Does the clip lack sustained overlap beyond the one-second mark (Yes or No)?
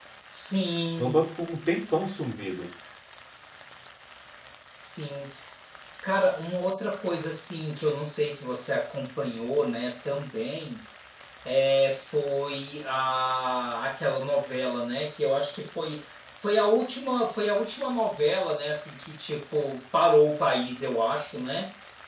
Yes